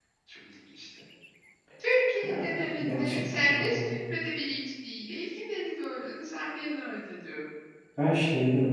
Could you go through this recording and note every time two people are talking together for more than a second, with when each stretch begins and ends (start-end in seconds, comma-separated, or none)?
2.3-3.9